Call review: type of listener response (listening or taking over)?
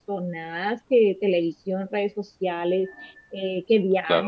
listening